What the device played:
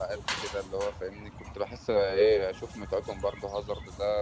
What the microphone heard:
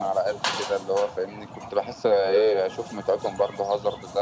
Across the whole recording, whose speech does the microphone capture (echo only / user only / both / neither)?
echo only